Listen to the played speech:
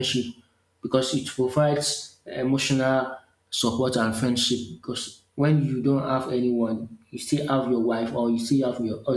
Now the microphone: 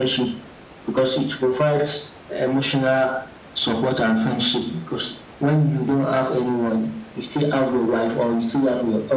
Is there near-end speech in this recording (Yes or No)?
No